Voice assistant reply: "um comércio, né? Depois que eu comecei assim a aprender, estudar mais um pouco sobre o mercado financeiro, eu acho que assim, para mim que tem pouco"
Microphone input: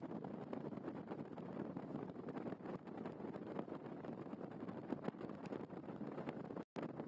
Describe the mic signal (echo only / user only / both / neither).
neither